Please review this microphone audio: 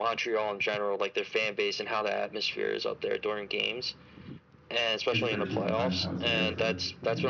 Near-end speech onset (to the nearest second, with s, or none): 5 s